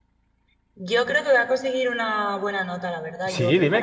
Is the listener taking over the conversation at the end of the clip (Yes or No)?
Yes